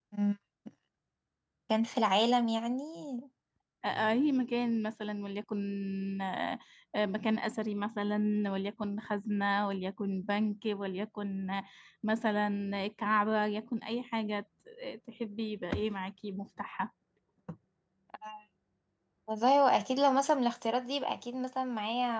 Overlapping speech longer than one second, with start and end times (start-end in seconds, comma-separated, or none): none